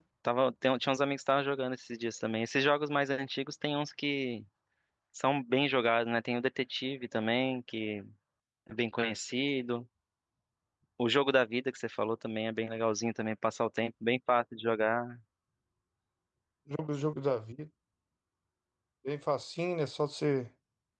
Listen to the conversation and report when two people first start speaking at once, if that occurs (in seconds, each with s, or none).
none